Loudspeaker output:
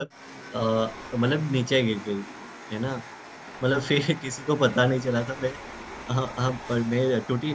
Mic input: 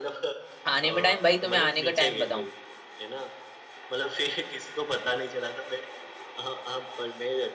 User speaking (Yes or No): Yes